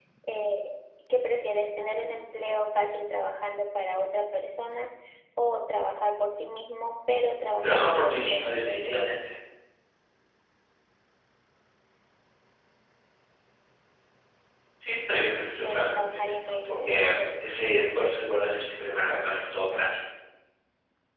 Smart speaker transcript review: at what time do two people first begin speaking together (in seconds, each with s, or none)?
7.6 s